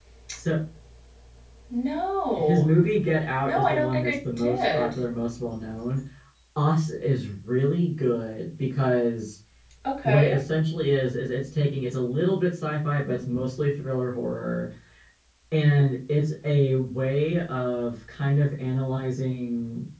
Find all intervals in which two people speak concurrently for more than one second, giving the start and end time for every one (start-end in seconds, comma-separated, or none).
3.4-4.9